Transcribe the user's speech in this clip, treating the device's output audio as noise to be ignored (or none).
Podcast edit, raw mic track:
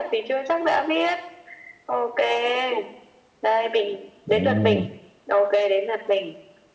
ừm.